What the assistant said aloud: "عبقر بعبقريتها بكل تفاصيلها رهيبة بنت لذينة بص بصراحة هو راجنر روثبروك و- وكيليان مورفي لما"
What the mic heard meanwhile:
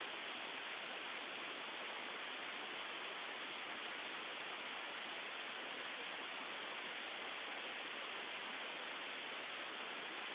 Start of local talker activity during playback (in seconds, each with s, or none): none